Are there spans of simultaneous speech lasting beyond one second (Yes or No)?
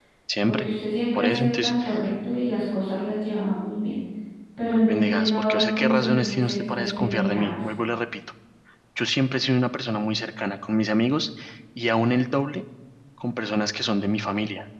Yes